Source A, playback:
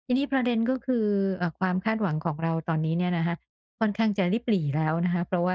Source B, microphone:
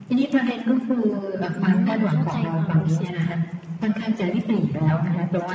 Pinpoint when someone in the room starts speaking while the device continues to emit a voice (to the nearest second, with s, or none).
2 s